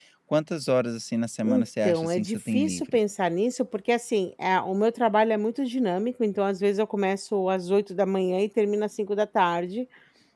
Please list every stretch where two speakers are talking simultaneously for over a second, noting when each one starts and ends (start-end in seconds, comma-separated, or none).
1.4-3.0